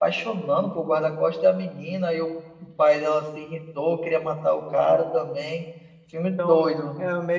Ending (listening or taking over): taking over